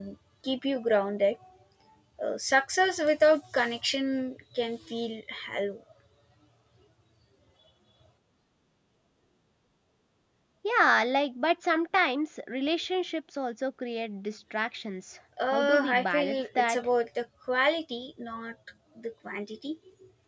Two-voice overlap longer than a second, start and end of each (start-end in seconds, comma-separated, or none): 15.5-16.8